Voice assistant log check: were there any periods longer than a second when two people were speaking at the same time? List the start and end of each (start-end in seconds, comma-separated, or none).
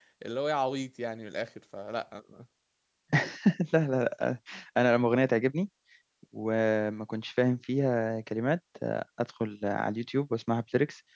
none